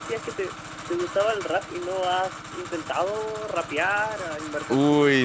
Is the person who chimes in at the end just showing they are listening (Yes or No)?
No